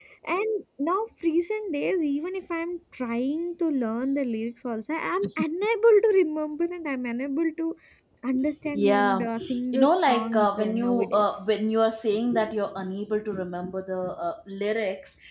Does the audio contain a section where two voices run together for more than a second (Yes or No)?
Yes